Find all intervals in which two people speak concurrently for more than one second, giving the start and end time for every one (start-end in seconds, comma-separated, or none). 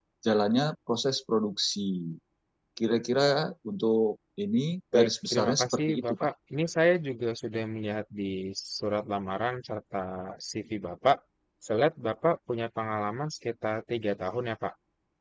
4.9-6.3